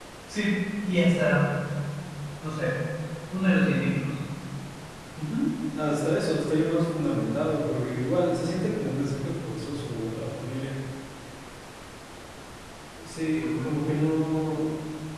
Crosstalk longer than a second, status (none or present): none